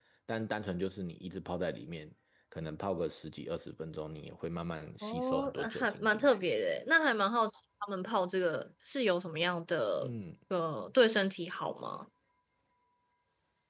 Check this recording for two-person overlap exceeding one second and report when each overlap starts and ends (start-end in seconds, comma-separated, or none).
5.0-6.4